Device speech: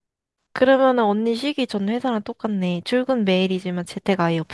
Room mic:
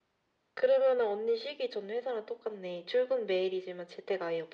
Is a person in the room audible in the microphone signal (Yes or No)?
No